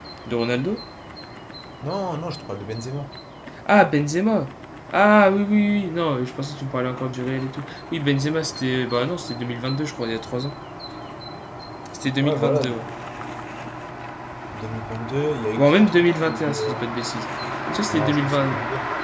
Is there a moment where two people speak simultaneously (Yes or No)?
Yes